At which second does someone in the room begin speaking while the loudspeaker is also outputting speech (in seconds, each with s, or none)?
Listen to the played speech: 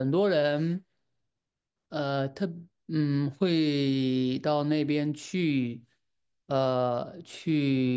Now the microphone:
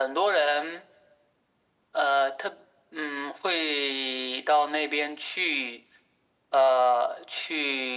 none